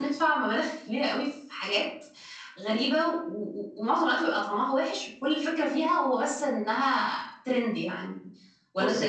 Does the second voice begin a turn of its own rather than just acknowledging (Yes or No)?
Yes